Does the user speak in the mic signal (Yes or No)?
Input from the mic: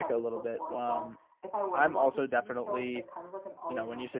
Yes